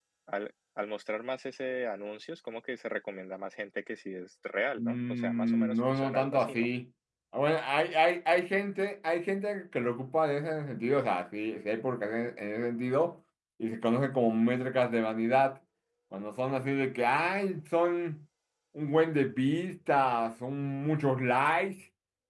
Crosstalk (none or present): present